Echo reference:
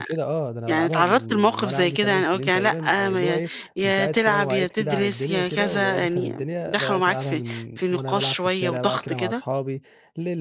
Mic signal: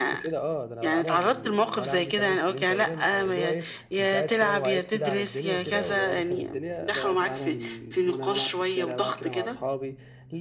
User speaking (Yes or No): No